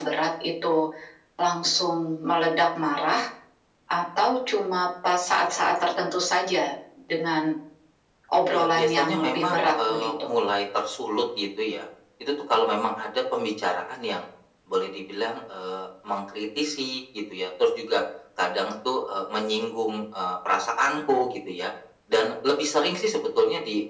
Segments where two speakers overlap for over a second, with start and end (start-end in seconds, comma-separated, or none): 8.5-10.3